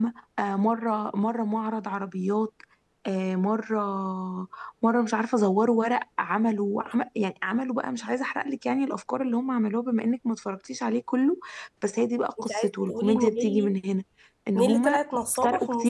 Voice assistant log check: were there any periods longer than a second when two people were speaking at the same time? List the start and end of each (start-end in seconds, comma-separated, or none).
12.4-13.7